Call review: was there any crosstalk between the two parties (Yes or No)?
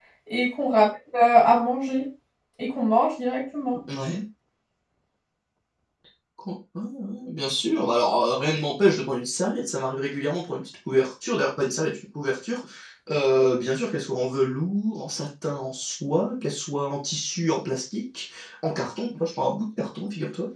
No